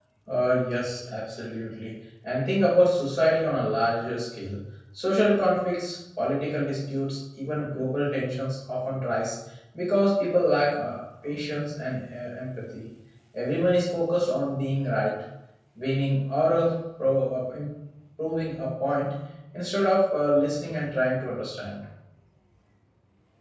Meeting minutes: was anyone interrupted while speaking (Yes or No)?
No